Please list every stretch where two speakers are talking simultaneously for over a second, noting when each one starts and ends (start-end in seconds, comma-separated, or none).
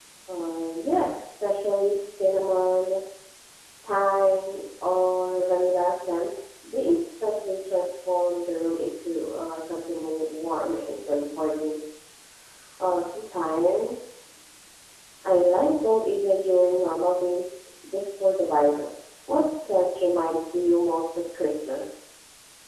none